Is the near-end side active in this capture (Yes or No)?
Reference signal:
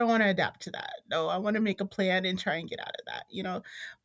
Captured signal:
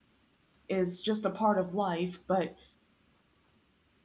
Yes